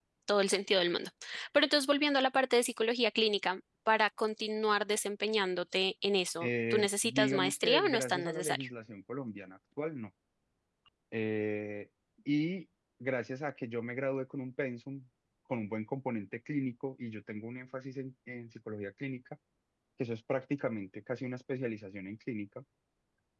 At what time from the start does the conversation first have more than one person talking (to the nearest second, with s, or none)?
6 s